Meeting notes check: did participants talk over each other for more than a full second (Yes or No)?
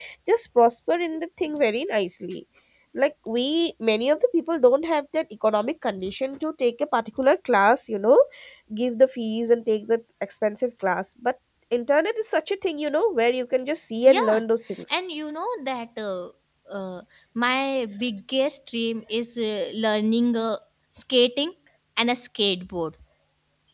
No